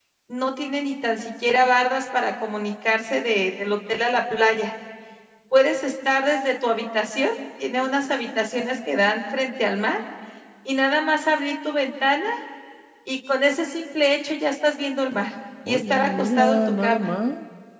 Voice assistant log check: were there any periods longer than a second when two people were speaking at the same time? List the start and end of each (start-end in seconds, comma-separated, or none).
15.7-17.1